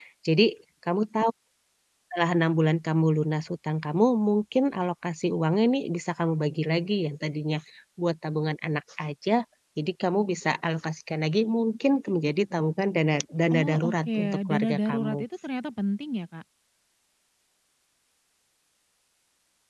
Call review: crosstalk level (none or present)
present